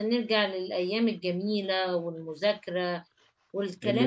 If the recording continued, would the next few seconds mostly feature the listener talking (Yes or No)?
Yes